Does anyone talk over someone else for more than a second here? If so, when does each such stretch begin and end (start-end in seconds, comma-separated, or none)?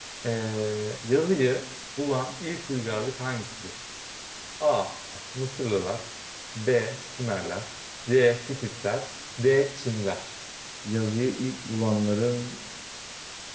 none